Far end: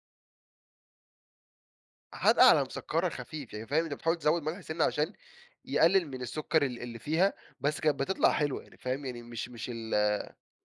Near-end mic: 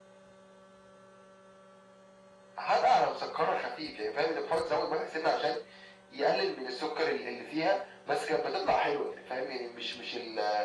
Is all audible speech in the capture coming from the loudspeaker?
Yes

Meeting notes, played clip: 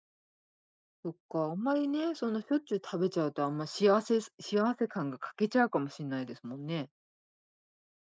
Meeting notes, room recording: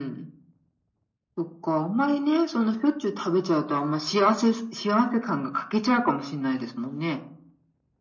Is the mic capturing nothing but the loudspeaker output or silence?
Yes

